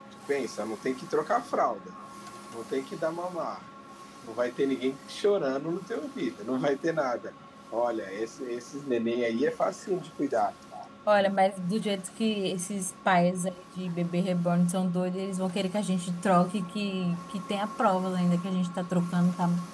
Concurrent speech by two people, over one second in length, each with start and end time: none

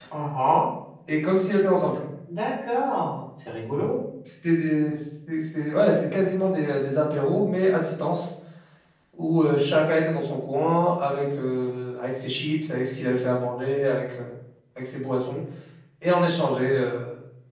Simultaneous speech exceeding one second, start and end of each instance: none

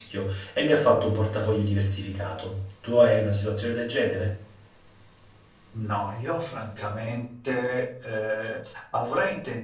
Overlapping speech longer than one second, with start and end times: none

